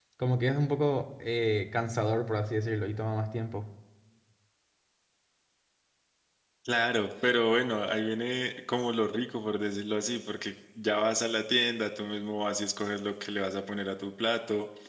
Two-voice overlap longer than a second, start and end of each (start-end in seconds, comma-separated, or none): none